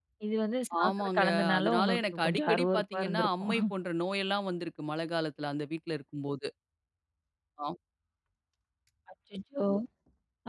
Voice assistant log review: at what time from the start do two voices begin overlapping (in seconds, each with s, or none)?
0.8 s